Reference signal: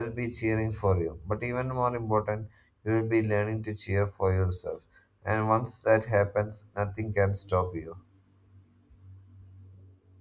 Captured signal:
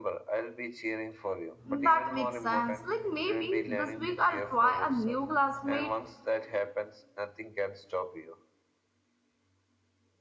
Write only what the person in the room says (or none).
That makes sense. Like maybe this week I'll try a new classmate